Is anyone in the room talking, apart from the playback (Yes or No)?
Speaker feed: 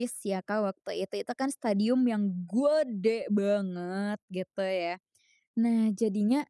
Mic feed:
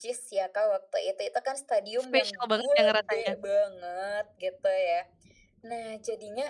Yes